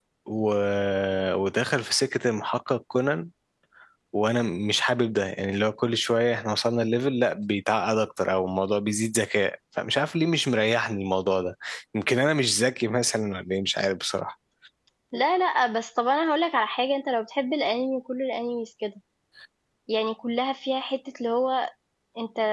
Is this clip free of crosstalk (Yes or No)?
Yes